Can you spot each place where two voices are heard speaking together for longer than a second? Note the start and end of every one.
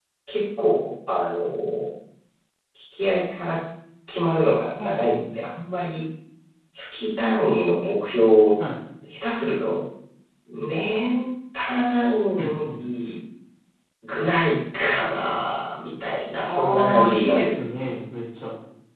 16.4-17.7

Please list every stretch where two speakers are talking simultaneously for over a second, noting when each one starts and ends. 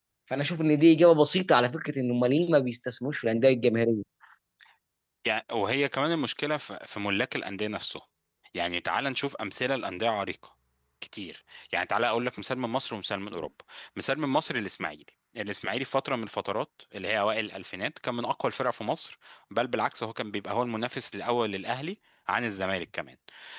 none

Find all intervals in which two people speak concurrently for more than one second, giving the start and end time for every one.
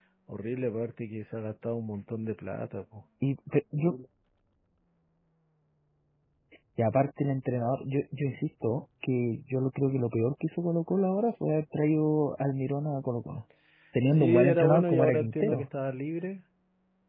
14.1-15.7

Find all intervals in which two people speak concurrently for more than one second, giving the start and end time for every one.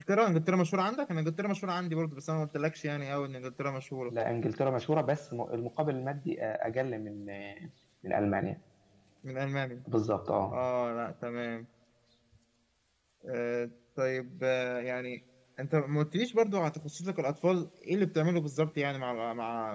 none

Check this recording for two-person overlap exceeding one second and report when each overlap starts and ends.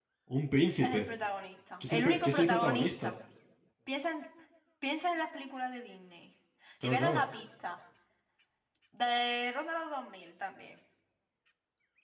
1.9-3.1

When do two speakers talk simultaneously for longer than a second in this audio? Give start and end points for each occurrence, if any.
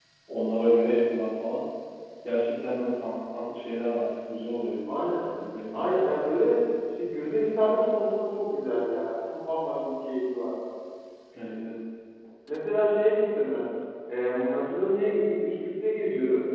none

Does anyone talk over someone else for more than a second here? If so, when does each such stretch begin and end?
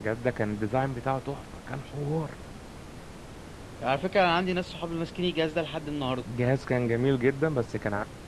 none

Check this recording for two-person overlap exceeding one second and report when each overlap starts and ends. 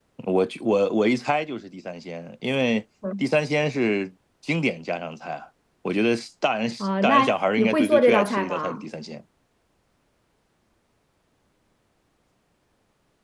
6.8-8.8

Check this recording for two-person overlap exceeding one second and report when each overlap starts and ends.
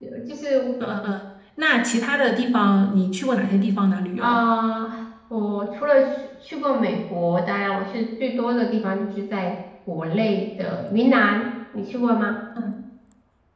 none

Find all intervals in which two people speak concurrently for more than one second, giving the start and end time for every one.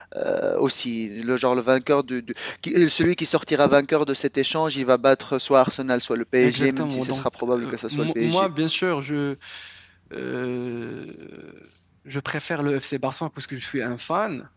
6.4-8.5

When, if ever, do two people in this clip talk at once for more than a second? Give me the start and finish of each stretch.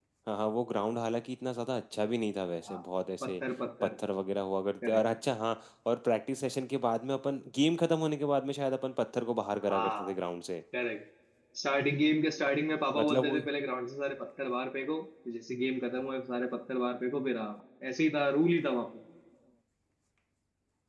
none

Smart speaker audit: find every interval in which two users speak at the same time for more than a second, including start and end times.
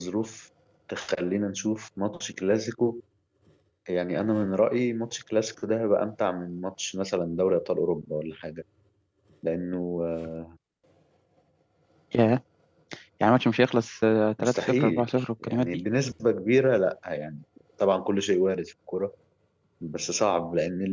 14.4-15.8

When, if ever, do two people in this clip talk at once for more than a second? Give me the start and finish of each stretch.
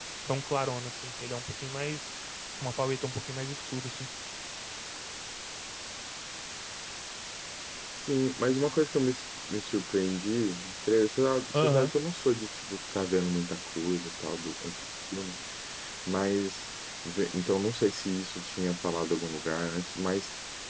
none

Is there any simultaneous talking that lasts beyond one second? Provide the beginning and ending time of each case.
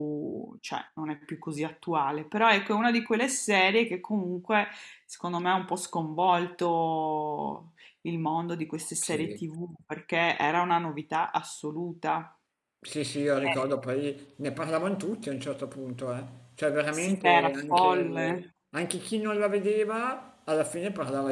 16.9-18.4

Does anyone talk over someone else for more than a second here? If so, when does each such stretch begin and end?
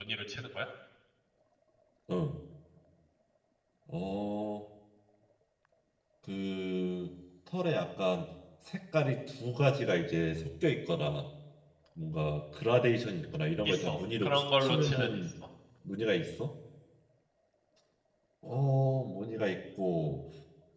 13.7-15.2

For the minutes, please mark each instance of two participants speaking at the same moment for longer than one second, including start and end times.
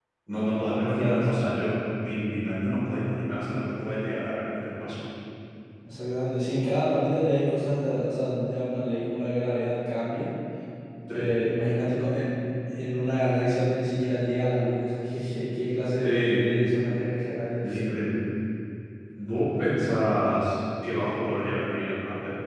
none

